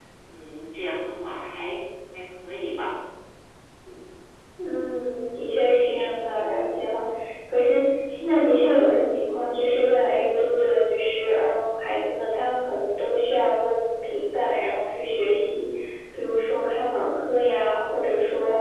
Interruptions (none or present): none